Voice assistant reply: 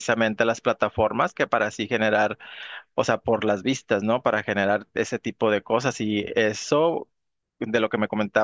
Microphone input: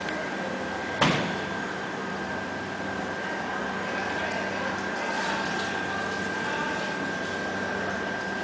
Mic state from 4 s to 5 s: neither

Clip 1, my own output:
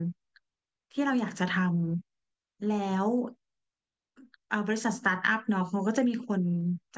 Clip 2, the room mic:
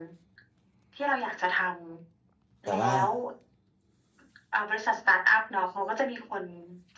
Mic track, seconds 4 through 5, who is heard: echo only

